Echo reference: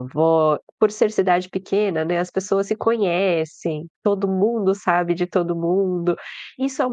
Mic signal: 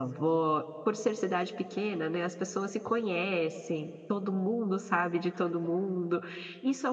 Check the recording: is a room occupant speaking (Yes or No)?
No